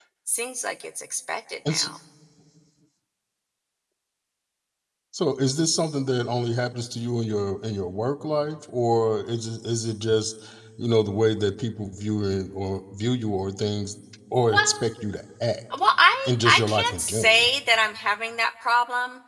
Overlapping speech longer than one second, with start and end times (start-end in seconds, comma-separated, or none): 16.3-17.5